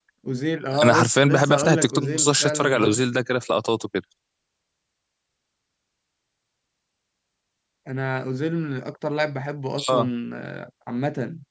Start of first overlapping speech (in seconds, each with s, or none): 0.8 s